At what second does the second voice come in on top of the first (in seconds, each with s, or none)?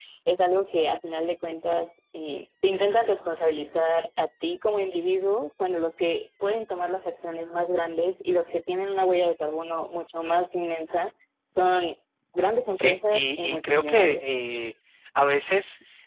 12.8 s